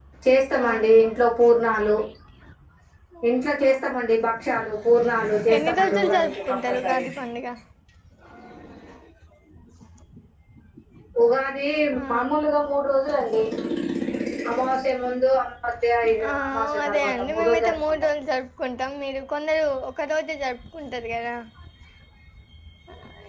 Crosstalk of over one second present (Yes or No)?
Yes